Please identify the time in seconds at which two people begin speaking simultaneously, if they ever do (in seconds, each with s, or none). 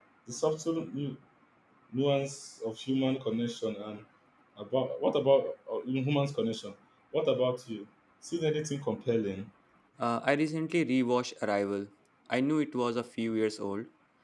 none